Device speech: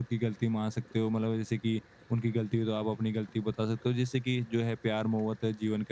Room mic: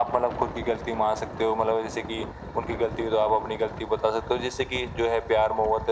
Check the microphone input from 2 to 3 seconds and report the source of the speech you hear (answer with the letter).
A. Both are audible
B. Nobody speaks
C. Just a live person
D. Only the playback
D